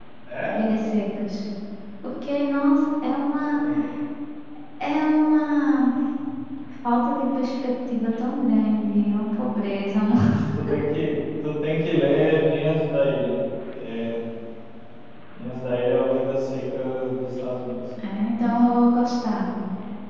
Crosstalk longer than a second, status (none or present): none